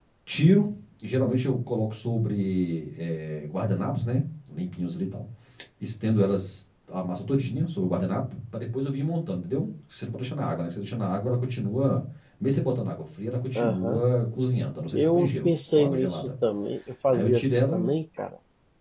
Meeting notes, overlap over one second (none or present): present